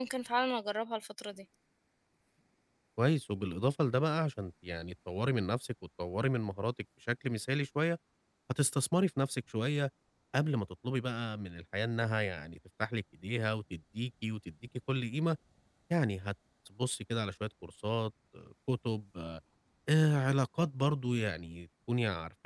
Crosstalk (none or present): none